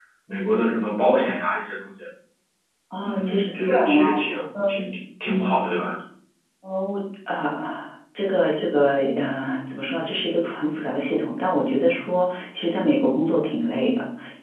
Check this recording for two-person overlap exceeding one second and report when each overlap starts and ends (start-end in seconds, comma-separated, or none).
3.0-4.8